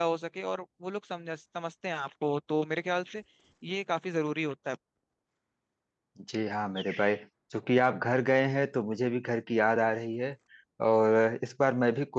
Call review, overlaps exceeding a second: none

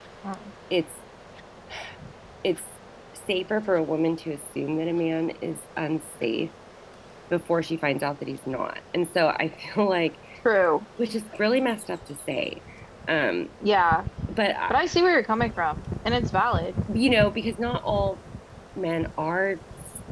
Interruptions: none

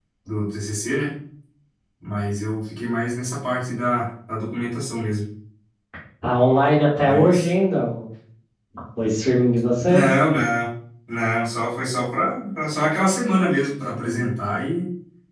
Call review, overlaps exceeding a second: none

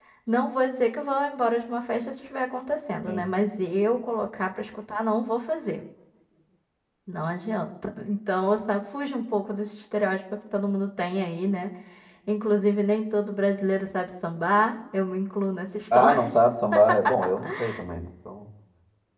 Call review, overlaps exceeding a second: none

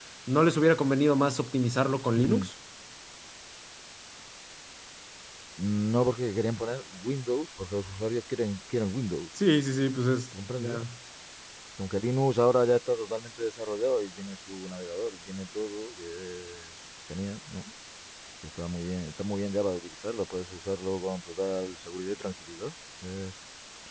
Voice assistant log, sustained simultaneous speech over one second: none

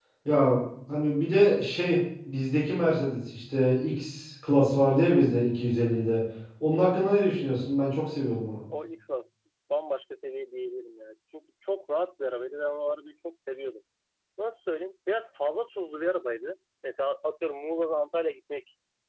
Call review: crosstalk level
none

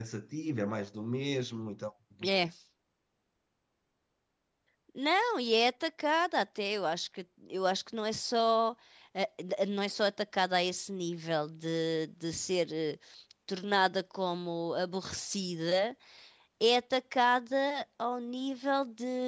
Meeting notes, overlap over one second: none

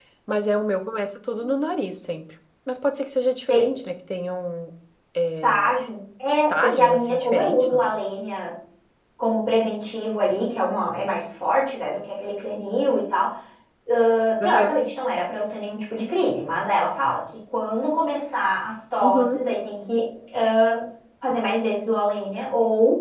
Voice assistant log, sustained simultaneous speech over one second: present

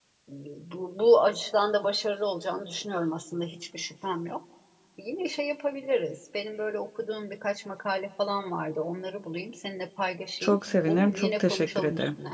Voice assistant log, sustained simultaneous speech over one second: present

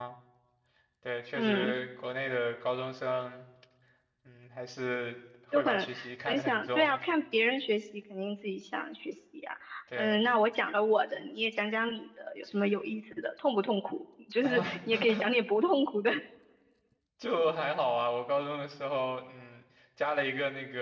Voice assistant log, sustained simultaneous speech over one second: present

